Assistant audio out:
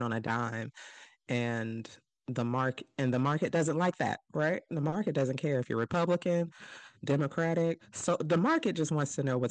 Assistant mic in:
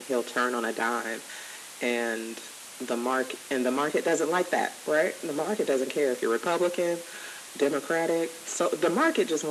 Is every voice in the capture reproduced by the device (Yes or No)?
Yes